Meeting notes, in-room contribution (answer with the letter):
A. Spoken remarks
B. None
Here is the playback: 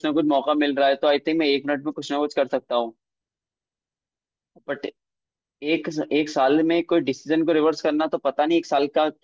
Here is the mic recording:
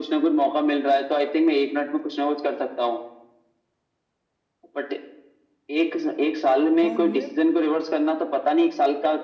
A